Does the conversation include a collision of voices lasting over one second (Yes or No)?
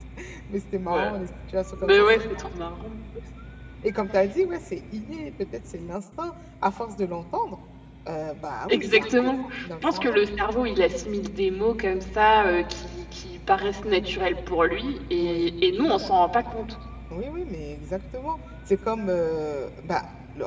Yes